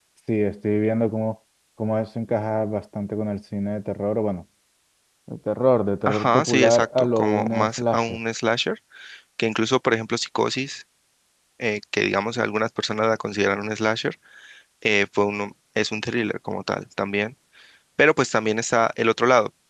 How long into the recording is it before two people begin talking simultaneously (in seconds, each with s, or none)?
6.1 s